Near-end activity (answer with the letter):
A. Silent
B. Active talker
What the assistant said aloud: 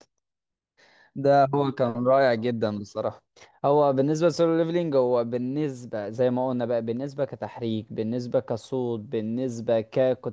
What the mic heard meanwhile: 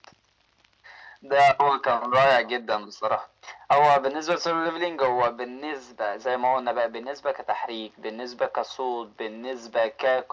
A